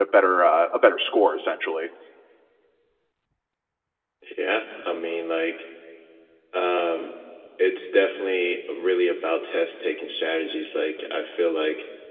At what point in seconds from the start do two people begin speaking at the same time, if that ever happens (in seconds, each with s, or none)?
none